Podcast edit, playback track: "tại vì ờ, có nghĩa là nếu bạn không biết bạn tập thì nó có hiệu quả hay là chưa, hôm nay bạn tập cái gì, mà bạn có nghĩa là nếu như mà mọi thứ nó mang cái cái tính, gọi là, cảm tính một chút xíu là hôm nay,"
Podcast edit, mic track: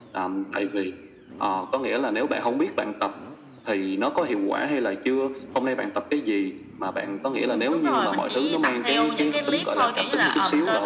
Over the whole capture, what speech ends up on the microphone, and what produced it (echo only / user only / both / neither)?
both